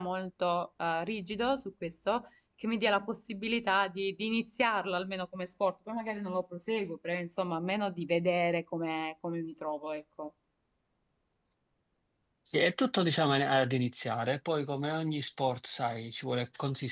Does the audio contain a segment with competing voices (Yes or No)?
No